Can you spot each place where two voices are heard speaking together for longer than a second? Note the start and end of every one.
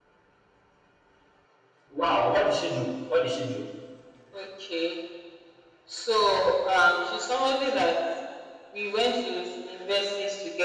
none

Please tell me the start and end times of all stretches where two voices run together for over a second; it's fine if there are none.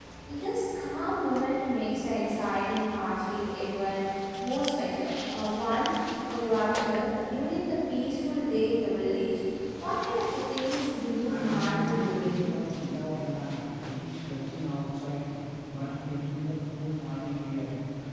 11.3-12.5

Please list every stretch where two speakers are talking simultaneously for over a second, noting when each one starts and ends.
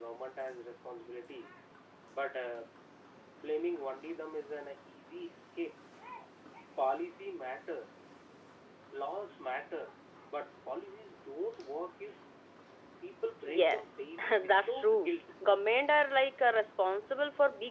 13.4-15.1

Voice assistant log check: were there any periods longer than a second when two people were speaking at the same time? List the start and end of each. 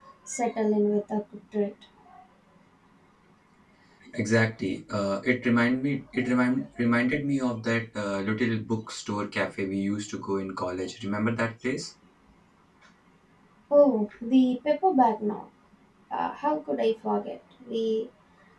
none

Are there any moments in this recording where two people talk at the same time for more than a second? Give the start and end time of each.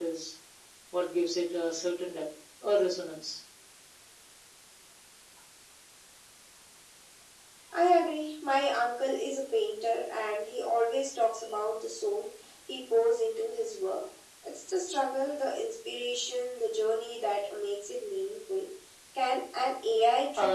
none

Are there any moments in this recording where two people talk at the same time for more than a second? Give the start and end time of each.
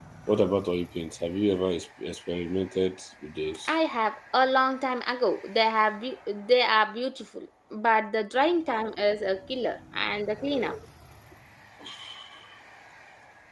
none

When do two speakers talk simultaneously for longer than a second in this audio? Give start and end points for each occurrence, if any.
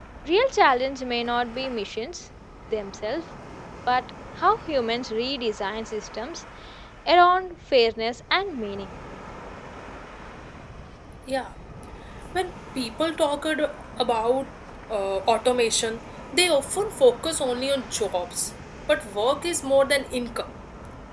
none

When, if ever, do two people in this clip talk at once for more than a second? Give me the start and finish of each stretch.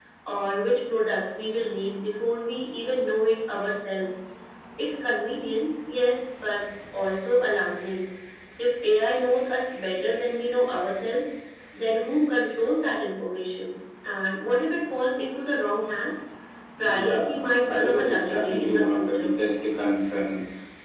16.8-19.3

